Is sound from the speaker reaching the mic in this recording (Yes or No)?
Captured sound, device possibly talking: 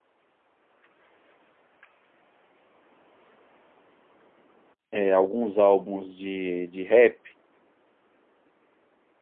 No